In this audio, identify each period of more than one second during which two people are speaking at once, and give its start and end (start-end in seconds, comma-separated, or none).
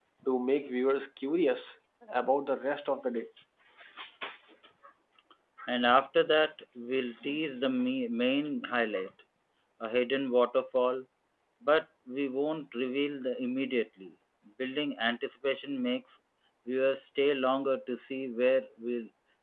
none